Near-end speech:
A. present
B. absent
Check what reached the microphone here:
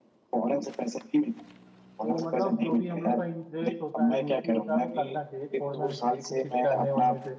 A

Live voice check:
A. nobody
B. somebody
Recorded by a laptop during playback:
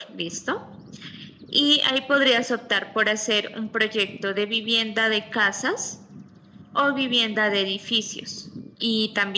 A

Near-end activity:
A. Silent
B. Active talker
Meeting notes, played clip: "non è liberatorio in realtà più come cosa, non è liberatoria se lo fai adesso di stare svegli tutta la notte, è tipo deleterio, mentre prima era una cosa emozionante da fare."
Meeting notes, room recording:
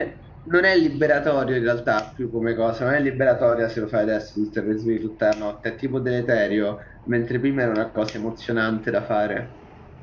A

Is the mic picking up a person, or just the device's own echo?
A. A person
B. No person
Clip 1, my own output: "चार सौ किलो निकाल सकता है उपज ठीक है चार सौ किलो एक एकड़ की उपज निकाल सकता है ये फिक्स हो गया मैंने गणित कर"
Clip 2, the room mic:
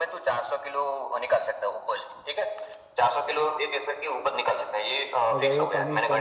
A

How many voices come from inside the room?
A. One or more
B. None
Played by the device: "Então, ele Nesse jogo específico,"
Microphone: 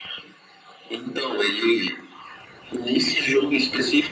B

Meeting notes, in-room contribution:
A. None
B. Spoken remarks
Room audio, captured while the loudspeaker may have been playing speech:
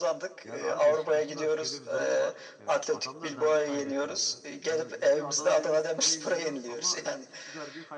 B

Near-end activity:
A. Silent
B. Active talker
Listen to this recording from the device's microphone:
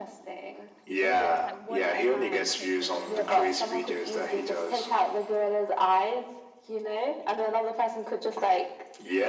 B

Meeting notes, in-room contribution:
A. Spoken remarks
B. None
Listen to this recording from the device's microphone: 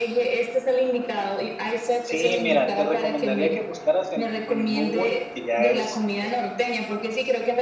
A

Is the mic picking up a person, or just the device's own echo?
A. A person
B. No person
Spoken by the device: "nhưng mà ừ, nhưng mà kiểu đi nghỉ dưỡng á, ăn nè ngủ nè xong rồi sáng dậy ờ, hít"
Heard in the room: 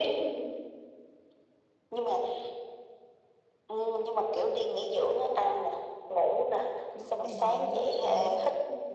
A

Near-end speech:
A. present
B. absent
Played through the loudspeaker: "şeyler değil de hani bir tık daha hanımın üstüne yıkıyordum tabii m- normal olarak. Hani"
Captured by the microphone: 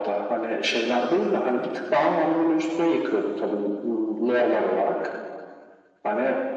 B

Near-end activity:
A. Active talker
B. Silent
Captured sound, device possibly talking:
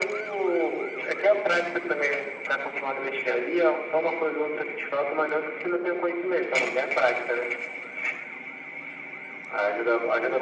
B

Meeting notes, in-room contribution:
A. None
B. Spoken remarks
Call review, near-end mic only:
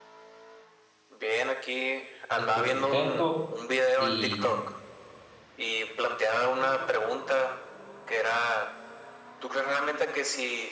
B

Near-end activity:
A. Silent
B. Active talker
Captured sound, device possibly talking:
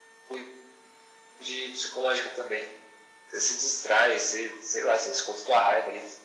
A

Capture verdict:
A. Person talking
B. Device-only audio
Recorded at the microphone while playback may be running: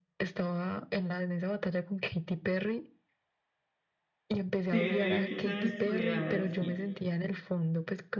A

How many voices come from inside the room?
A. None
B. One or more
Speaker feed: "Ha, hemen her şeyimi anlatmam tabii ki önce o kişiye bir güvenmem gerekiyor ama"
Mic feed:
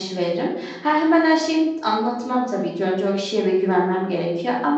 A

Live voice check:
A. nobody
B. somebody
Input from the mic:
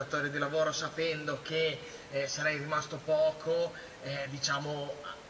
A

